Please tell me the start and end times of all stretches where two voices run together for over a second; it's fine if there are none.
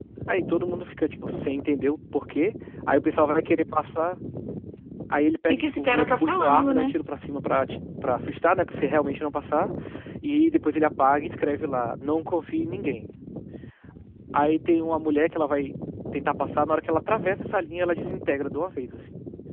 5.5-6.9

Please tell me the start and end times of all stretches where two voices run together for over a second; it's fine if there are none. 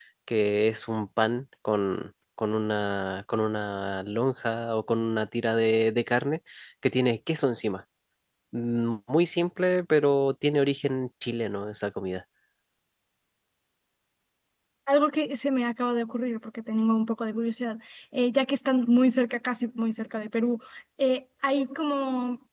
none

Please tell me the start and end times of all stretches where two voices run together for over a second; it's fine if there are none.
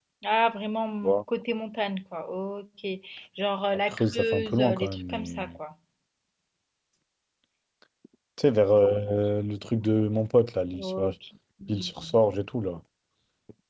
3.9-5.5

